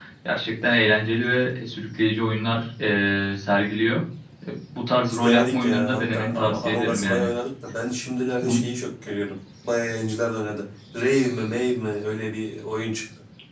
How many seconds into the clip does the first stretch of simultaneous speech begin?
5.1 s

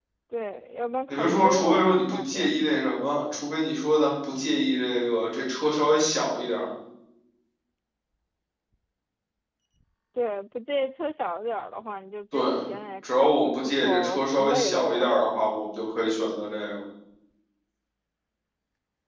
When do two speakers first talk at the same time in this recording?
1.1 s

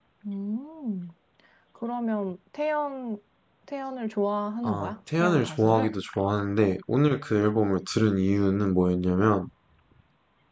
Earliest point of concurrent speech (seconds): 4.6 s

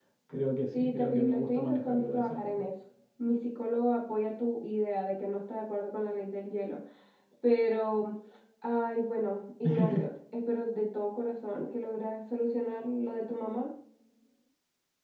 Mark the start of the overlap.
0.7 s

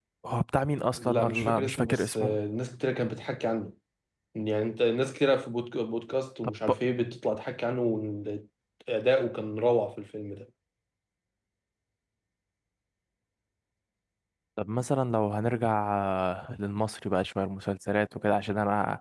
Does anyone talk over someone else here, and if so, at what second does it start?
1.0 s

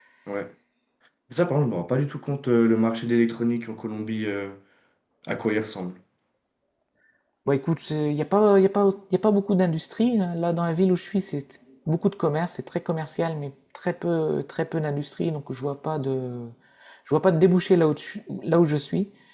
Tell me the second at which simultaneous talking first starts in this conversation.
none

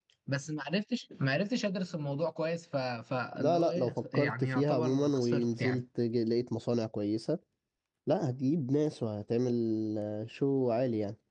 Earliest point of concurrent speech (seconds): 3.4 s

